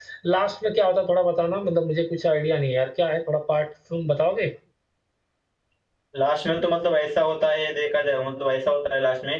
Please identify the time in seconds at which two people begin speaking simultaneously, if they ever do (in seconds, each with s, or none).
none